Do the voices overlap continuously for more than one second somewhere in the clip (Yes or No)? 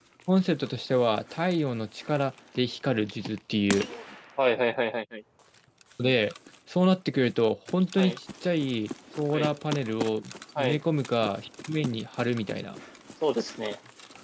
No